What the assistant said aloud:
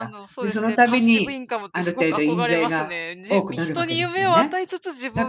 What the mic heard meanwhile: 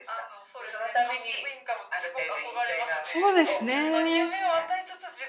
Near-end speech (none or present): present